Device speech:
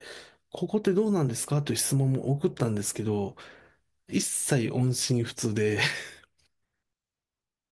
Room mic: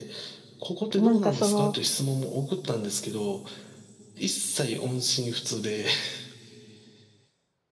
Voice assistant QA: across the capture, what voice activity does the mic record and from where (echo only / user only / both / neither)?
both